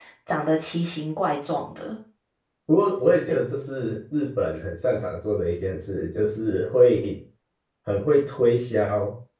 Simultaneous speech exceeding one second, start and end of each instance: none

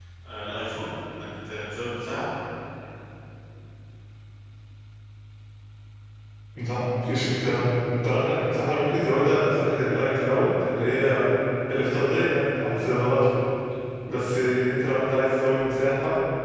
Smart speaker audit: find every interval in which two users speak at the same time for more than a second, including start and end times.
none

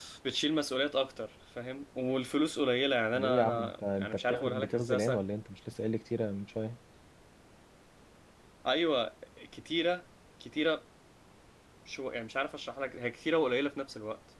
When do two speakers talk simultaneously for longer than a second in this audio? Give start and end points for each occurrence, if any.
3.1-5.0

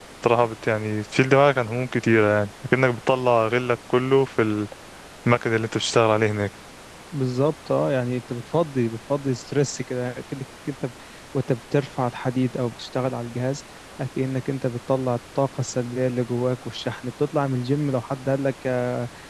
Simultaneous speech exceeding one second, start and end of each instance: none

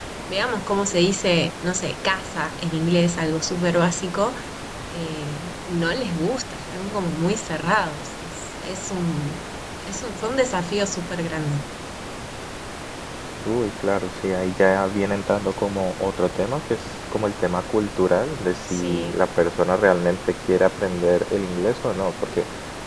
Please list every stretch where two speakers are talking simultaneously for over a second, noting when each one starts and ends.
none

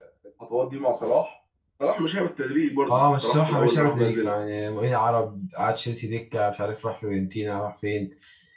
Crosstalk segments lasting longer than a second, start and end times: 2.9-4.3

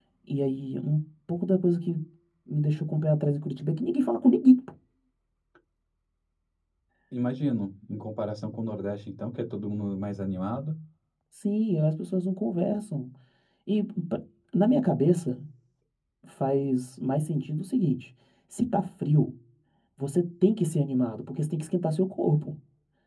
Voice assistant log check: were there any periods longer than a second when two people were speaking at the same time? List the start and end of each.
none

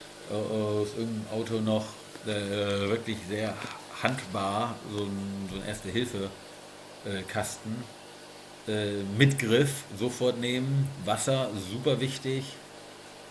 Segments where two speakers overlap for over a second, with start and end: none

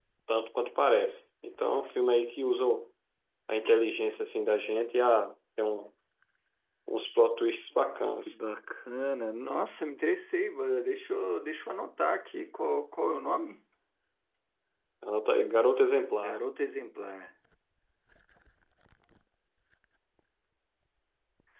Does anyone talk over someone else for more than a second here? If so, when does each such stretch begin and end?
none

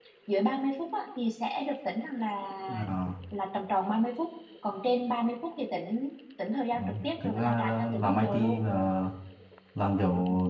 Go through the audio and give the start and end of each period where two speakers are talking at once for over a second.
6.8-8.6

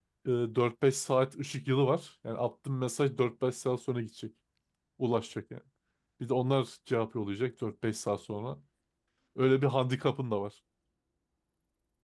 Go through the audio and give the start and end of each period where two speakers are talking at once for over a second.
none

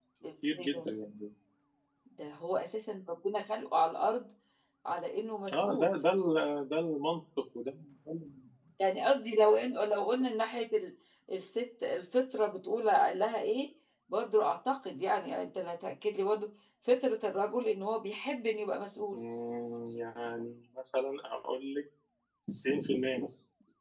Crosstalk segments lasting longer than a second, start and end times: none

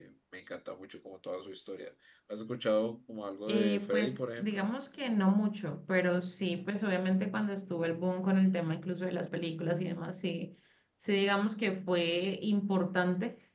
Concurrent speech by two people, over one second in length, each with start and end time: 3.5-4.7

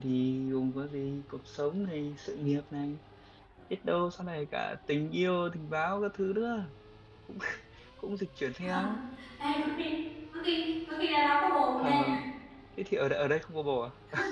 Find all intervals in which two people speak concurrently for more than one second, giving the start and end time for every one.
none

